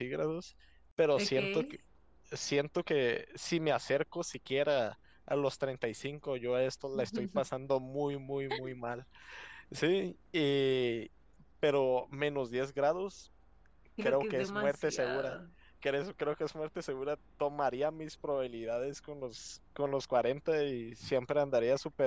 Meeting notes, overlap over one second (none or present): present